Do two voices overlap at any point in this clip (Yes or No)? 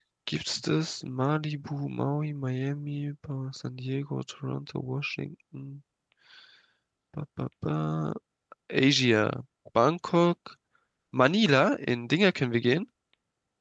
No